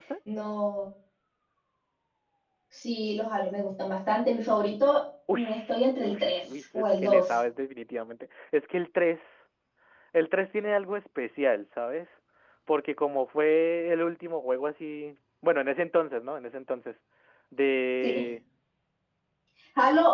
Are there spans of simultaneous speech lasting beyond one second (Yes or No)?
Yes